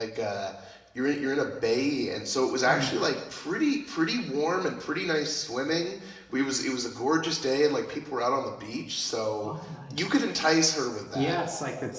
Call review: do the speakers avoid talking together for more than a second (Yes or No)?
Yes